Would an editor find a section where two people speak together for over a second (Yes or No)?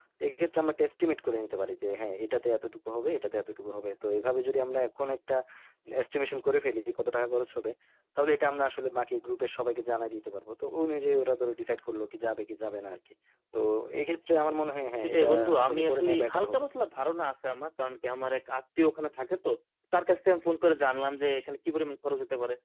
Yes